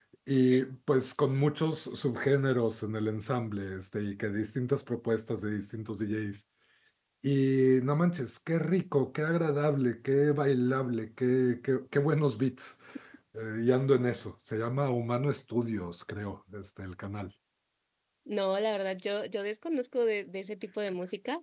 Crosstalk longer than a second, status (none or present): none